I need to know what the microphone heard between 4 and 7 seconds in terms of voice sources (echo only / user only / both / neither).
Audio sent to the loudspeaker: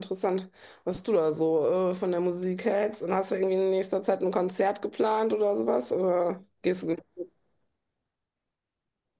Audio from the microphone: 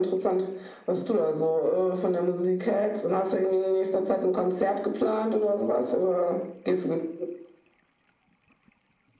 echo only